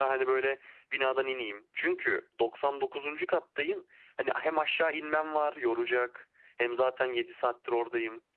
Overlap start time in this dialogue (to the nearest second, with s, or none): none